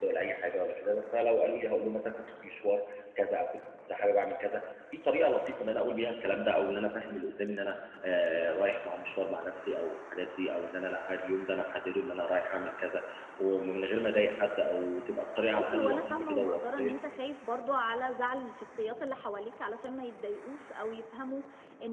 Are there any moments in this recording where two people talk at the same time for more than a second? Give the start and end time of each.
15.5-16.9

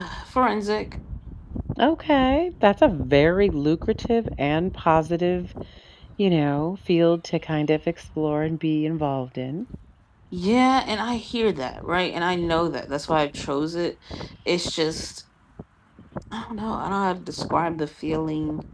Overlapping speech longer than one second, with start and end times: none

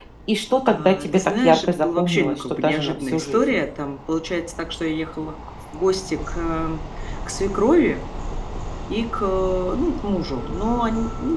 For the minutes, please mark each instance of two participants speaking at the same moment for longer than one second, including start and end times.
0.7-3.6

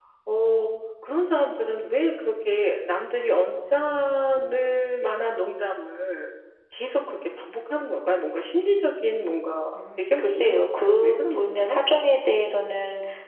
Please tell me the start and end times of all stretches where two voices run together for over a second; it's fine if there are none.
9.8-11.8

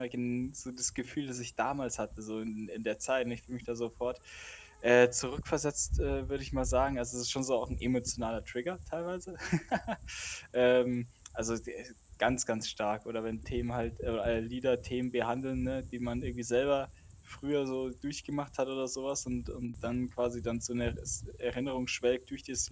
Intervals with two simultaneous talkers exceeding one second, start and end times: none

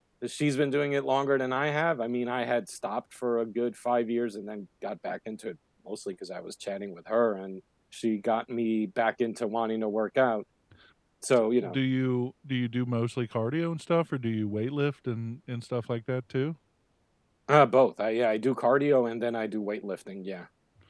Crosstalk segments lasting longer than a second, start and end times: none

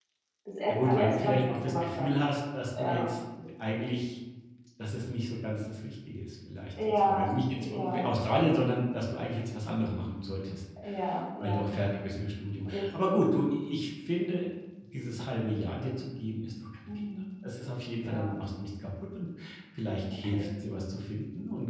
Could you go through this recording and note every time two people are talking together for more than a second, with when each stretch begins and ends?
0.7-2.1

